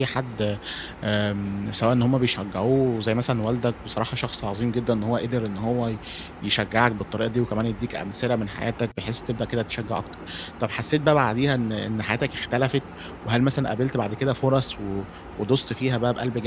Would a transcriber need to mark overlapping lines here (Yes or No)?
No